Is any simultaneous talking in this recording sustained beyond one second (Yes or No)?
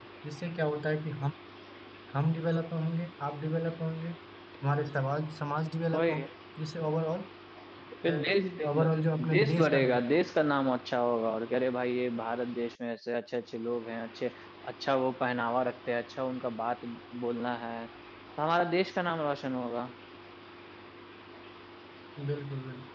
Yes